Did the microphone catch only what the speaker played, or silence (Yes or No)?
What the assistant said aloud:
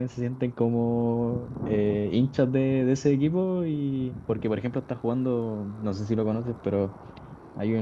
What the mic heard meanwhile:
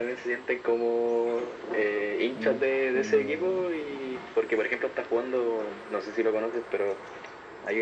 No